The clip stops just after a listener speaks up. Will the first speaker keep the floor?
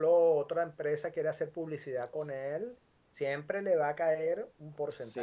No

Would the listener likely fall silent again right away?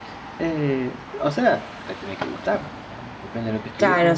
No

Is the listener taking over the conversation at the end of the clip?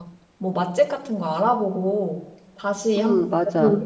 Yes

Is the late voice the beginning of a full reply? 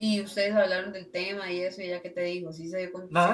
Yes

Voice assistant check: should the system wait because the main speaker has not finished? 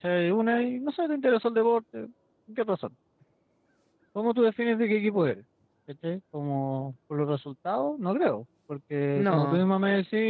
Yes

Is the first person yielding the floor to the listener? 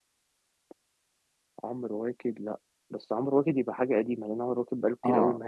Yes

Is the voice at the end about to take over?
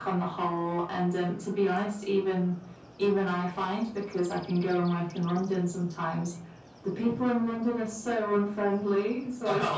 No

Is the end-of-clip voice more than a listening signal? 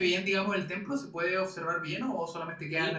Yes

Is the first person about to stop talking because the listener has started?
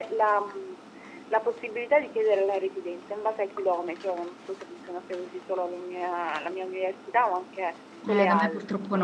Yes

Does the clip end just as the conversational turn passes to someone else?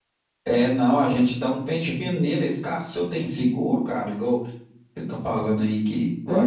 Yes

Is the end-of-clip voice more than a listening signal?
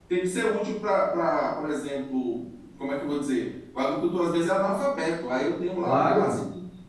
No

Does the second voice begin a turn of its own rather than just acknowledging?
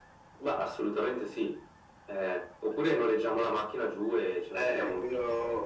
Yes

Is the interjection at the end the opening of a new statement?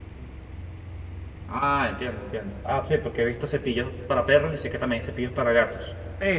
Yes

